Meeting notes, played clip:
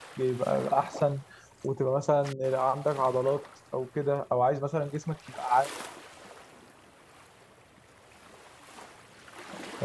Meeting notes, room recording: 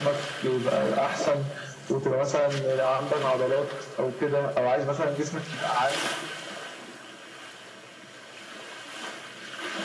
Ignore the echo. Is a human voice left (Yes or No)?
No